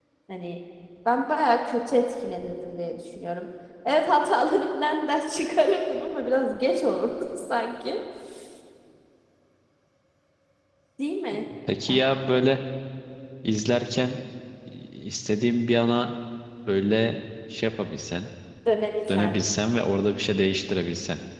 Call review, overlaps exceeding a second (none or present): none